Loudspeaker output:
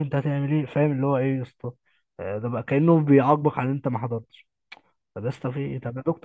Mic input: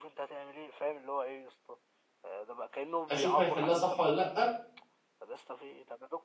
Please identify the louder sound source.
user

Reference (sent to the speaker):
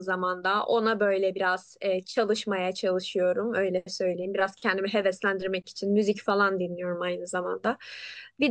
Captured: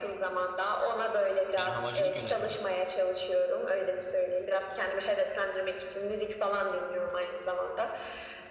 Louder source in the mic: echo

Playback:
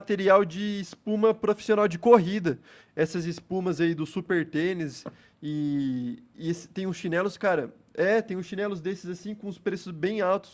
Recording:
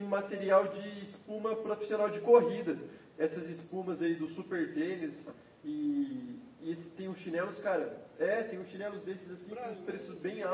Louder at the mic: echo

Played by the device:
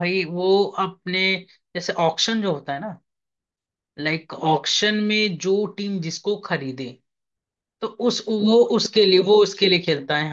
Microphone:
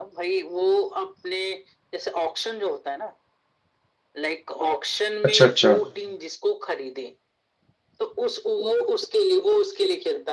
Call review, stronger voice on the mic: user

